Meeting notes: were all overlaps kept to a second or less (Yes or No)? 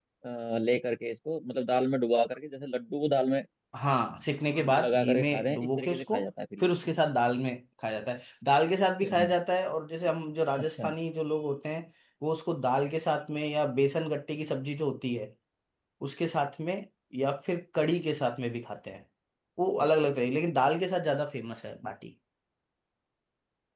No